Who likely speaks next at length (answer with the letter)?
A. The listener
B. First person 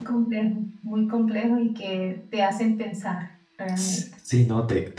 A